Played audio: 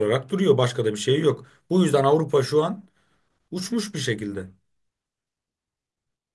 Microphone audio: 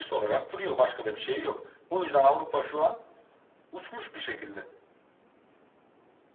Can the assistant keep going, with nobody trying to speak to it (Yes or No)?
Yes